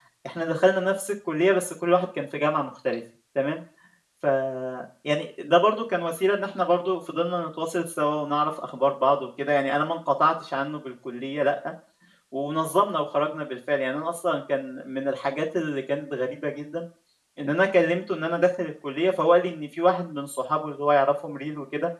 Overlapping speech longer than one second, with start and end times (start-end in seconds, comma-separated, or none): none